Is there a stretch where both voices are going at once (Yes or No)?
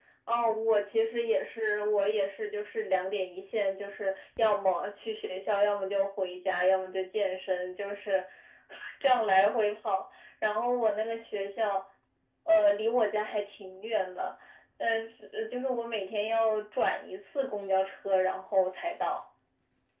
No